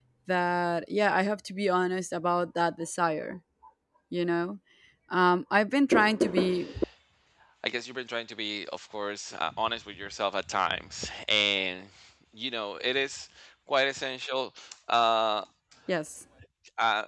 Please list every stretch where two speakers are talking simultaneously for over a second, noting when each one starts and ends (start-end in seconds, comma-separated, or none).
none